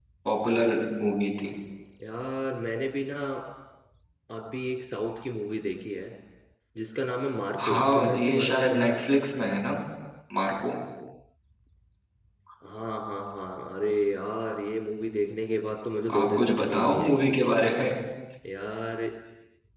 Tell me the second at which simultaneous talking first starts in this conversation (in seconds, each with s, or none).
7.6 s